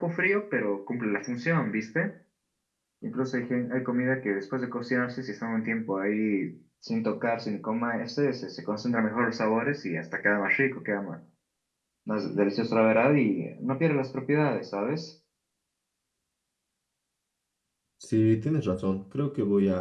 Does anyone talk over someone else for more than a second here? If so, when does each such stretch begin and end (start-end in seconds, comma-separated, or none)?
none